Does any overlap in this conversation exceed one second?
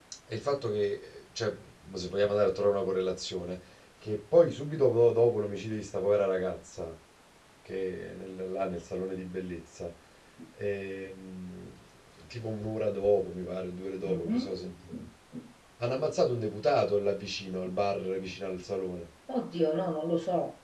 No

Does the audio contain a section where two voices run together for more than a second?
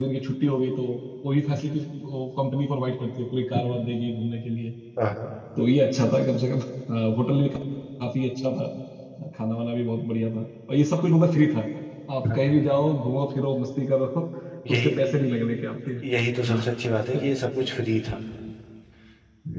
No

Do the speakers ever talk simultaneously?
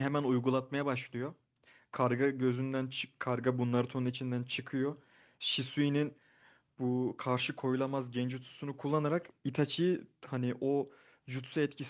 No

